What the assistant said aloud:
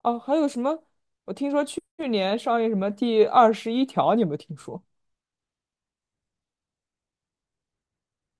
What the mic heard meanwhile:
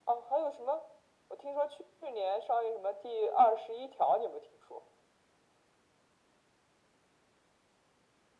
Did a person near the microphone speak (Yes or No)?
No